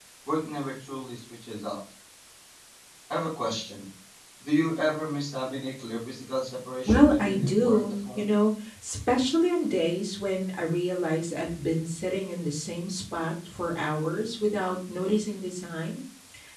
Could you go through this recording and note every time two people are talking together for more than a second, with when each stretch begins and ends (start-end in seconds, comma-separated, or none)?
6.8-8.2